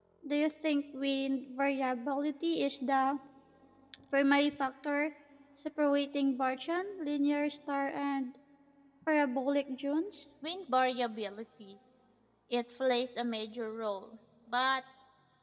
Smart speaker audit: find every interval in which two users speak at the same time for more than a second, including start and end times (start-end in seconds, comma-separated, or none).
none